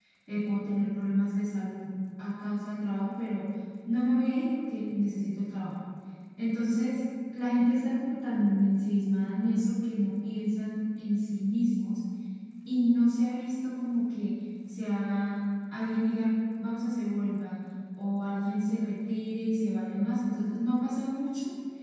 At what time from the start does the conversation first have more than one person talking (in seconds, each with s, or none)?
none